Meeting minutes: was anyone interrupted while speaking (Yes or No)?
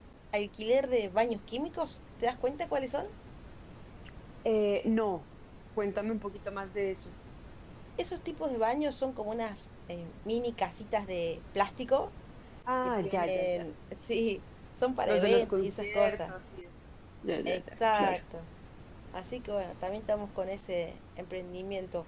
Yes